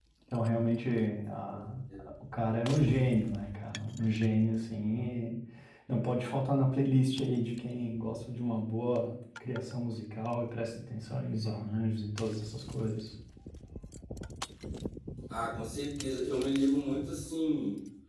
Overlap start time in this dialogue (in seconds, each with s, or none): none